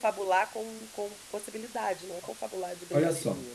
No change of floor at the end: No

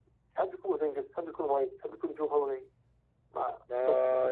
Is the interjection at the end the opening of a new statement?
Yes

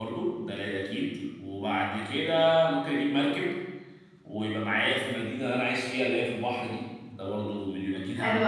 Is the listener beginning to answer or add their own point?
Yes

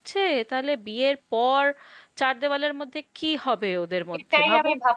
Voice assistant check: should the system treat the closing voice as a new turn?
Yes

